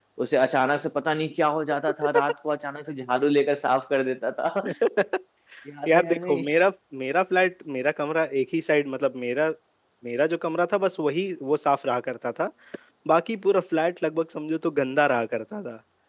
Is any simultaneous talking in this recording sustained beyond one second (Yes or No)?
No